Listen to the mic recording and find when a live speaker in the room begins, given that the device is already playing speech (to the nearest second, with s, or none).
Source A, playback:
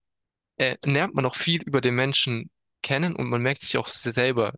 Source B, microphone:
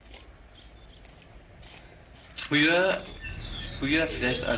2 s